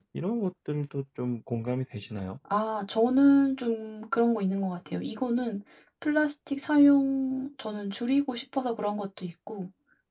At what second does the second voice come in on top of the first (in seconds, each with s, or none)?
none